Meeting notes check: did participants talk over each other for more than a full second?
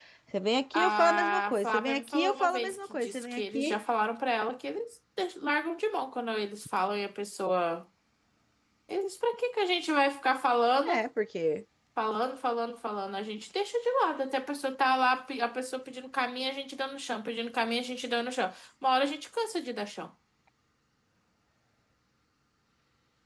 Yes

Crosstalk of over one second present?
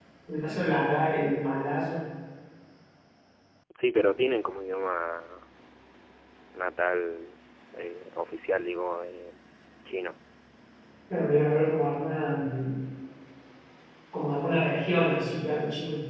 No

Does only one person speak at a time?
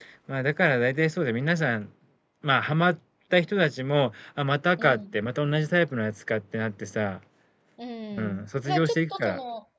No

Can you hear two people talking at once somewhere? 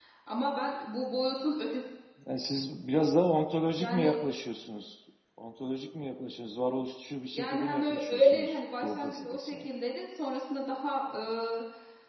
Yes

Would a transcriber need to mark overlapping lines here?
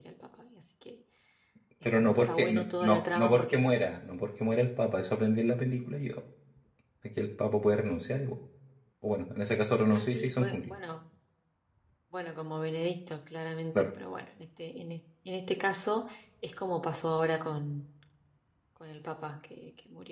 Yes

